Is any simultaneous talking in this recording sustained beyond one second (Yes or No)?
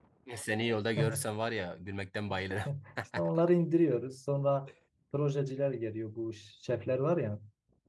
No